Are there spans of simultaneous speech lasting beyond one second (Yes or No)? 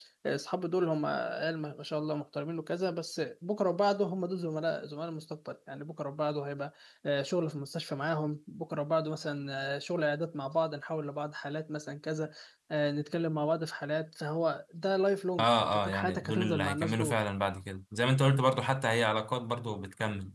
Yes